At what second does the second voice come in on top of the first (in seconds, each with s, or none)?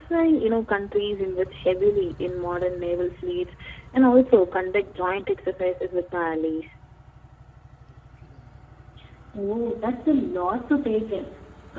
none